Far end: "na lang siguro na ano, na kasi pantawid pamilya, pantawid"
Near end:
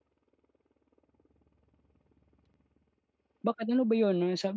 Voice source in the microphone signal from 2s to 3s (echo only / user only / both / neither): neither